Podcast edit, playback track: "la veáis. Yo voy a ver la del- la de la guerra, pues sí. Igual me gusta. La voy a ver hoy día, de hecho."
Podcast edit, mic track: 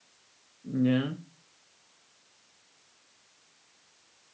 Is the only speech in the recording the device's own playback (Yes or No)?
No